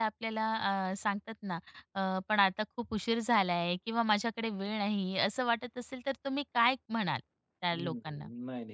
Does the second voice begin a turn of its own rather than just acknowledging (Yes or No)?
Yes